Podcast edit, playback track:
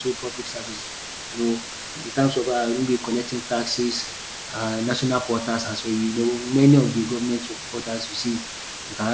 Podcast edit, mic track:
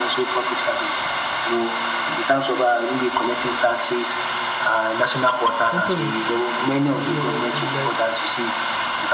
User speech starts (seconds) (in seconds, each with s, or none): 5.7 s